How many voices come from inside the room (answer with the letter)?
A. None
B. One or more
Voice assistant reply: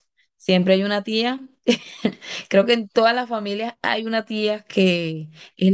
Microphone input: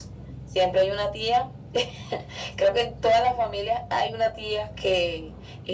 A